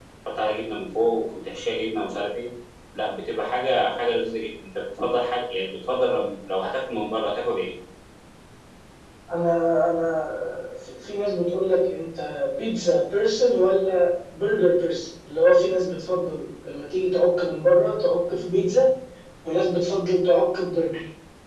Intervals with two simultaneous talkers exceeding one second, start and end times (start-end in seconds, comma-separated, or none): none